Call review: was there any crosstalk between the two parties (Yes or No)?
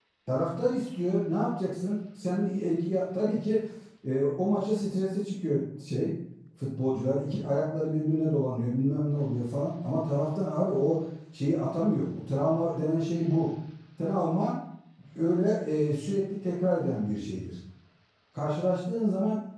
No